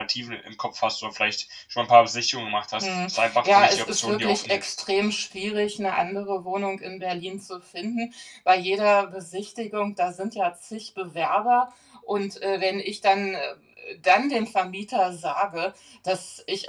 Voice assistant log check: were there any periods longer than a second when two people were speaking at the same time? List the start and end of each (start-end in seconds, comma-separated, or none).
2.8-4.8